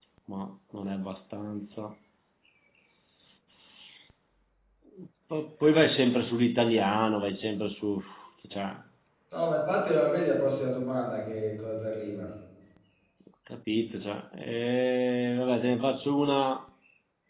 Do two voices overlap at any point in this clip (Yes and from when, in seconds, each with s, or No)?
No